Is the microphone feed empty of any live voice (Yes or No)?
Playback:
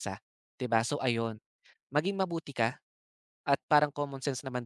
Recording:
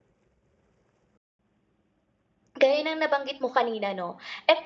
No